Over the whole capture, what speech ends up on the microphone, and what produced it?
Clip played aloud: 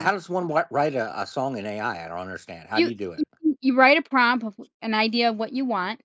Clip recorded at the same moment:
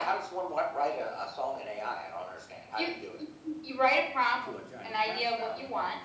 both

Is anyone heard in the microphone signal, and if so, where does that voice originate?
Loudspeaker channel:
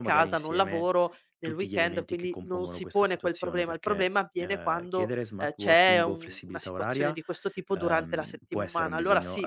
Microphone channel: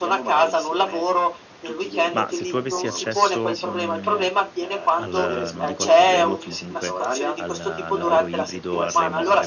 both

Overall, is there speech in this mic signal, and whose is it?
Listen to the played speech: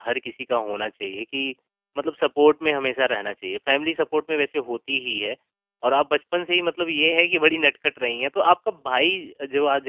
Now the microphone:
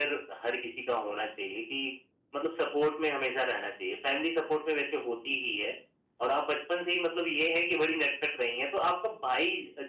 echo only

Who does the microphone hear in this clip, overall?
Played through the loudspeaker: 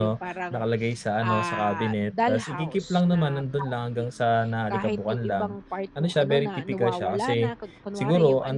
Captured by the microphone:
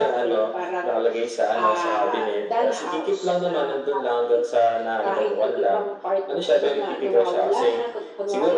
echo only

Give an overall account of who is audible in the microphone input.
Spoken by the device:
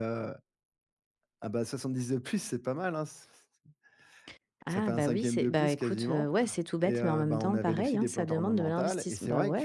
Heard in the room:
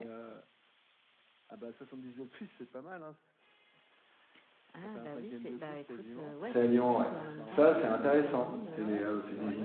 both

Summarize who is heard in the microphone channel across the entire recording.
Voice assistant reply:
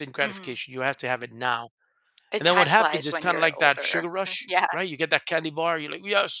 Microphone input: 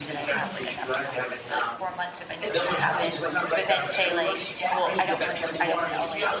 both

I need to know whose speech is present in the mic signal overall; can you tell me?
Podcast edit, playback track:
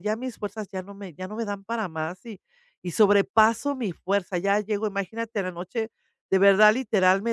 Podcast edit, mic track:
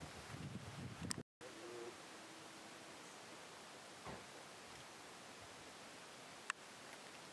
neither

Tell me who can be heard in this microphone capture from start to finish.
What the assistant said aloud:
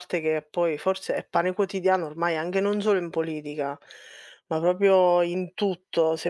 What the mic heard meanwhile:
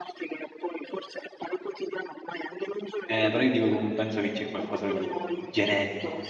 both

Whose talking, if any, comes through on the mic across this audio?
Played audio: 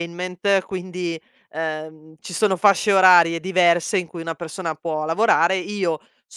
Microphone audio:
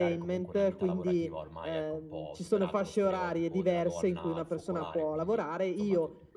both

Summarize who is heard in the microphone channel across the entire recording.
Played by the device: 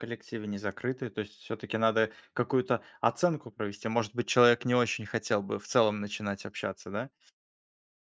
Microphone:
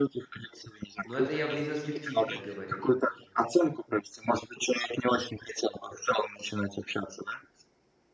both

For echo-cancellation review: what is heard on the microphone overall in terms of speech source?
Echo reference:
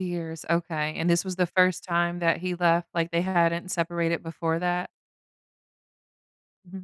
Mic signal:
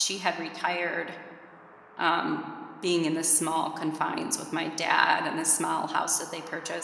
user only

